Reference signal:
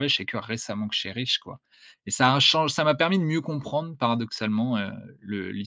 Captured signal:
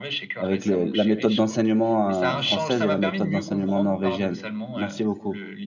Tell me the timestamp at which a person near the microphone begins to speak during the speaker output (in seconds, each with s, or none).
0.4 s